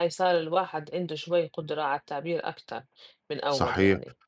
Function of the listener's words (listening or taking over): taking over